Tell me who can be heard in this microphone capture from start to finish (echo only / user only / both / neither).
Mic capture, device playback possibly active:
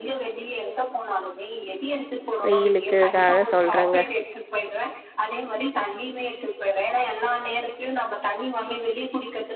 both